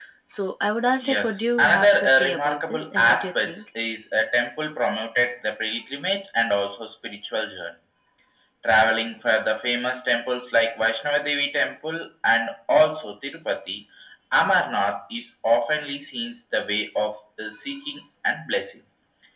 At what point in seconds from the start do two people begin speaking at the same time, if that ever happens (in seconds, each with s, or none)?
1.0 s